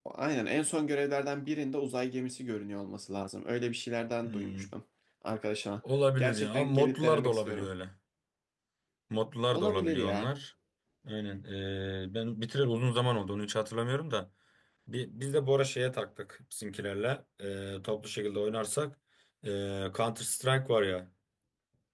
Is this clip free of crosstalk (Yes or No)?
No